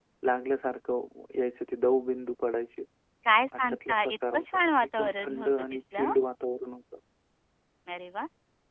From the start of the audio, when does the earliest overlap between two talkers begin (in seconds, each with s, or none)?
3.6 s